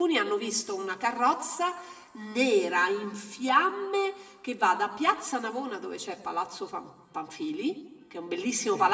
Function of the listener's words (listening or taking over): listening